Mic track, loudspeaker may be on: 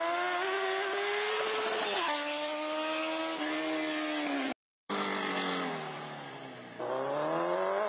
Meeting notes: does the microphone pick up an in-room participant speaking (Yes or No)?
No